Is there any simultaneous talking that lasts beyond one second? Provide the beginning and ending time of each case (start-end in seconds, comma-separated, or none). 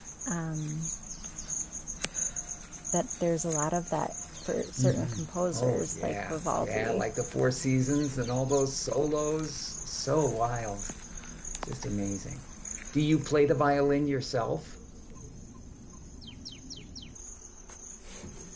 5.5-7.0